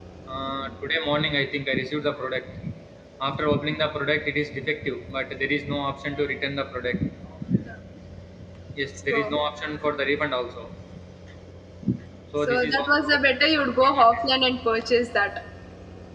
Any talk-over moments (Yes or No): Yes